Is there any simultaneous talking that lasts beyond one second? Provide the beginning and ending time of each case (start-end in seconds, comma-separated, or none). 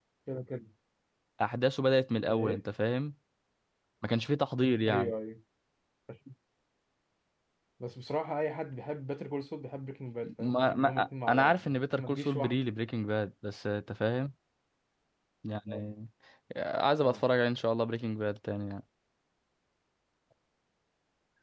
10.4-12.6